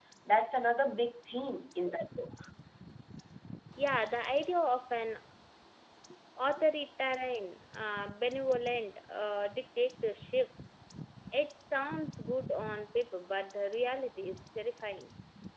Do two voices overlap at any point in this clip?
No

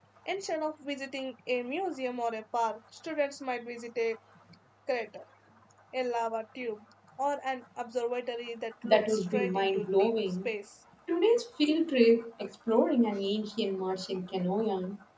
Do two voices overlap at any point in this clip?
Yes, from 8.8 s

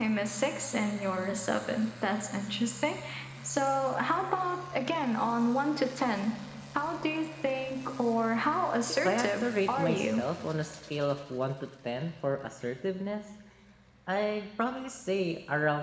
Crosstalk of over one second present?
Yes, from 8.9 s

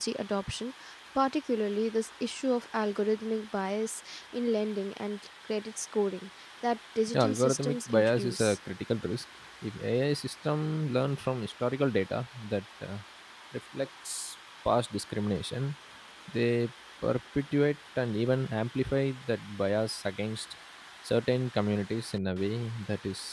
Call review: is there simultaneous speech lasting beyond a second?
Yes, from 7.1 s

